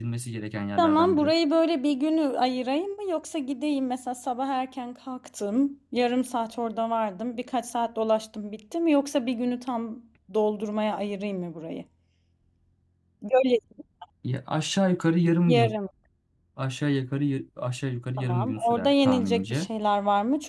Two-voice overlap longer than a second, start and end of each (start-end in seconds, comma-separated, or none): 18.2-19.7